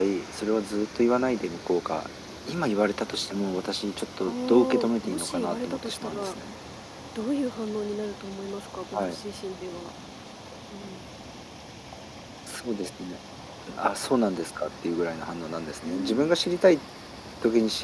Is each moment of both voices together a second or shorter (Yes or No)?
No